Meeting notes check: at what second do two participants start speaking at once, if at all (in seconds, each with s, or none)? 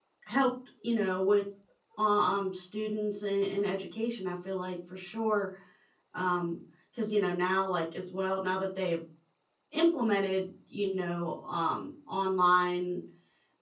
none